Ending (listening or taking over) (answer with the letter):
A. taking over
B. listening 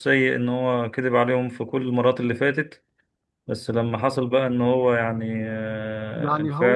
B